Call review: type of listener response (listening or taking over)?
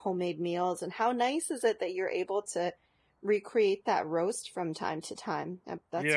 taking over